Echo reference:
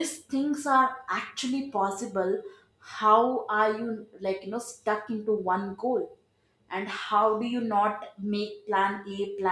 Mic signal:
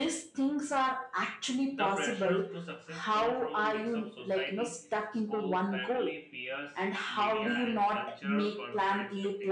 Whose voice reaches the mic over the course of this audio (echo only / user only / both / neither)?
both